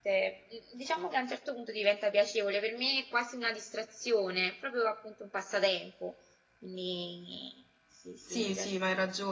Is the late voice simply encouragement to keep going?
No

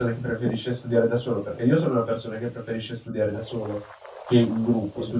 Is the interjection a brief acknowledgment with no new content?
Yes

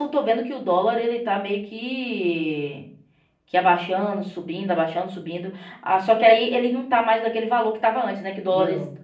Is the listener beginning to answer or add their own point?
No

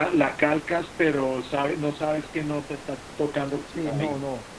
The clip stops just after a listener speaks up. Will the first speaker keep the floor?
No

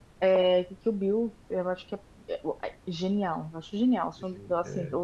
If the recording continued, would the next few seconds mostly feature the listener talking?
No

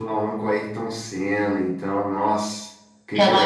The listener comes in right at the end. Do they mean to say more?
Yes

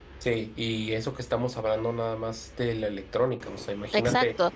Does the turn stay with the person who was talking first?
No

